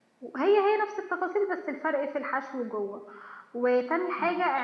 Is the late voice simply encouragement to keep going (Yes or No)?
Yes